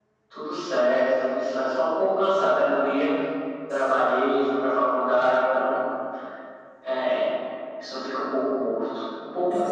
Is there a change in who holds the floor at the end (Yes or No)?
Yes